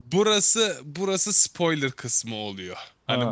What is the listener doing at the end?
listening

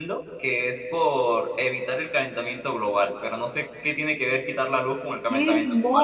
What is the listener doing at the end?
taking over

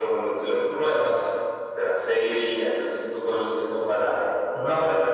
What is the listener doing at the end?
listening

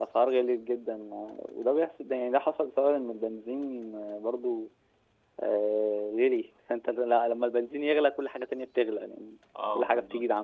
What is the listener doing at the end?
listening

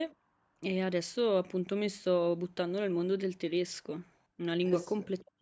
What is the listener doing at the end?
listening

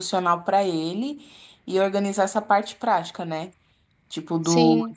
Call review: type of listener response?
listening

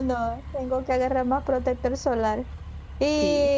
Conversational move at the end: listening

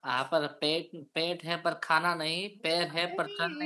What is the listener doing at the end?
taking over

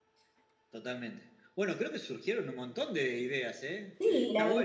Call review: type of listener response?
taking over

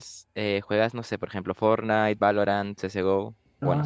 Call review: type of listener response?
taking over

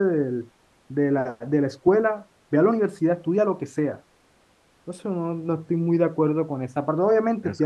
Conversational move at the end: listening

